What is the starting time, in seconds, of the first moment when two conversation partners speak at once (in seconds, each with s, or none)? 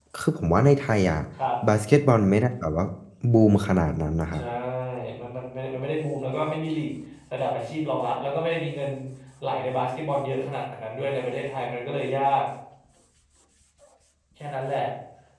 none